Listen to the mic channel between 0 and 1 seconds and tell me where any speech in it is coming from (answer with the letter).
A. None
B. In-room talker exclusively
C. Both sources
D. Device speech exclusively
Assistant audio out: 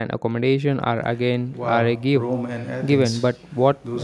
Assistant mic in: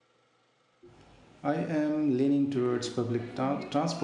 A